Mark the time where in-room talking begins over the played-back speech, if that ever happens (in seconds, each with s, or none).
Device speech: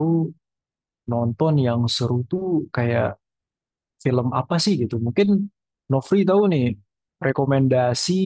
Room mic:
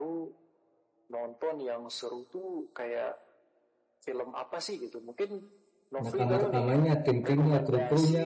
6.0 s